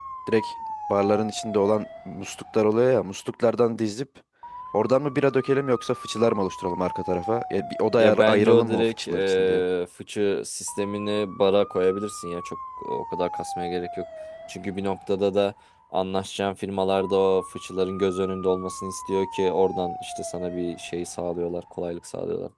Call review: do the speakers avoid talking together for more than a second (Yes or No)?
No